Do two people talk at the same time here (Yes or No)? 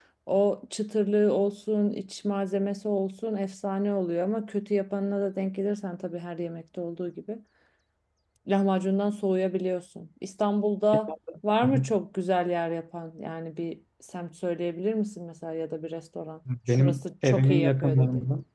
Yes